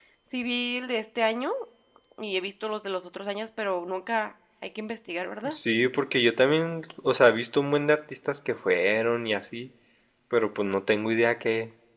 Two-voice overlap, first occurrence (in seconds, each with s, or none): none